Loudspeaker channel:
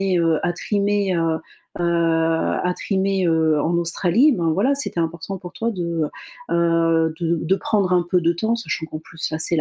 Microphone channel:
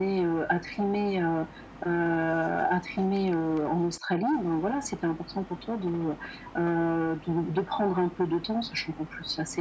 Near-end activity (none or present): none